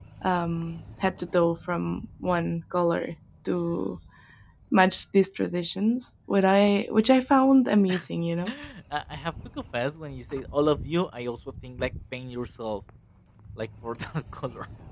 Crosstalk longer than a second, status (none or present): none